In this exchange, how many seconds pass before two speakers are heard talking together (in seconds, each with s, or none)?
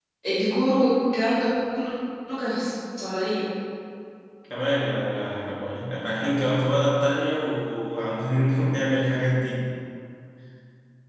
none